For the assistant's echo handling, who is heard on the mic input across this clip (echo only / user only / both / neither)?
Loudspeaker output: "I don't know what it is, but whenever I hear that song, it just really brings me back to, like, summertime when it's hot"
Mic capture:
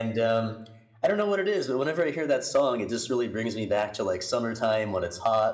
echo only